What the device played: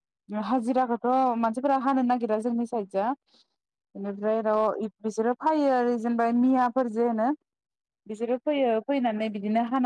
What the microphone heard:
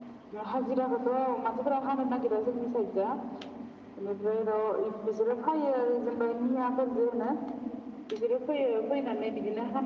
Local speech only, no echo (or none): none